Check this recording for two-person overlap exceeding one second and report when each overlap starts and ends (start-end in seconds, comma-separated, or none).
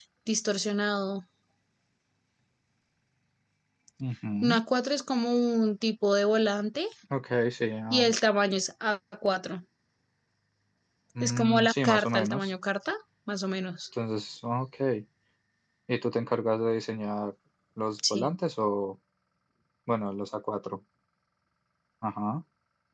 11.2-12.5